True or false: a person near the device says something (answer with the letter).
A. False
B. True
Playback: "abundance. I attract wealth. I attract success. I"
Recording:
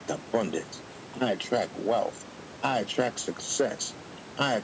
A